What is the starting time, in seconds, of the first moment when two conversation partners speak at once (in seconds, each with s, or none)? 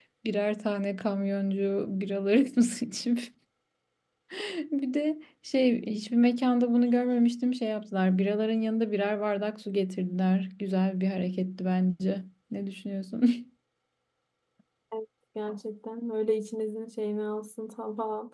none